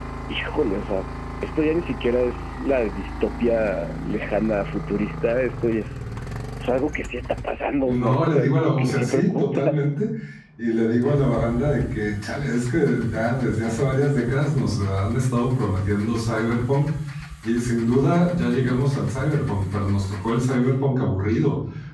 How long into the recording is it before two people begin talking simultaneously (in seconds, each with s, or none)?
7.9 s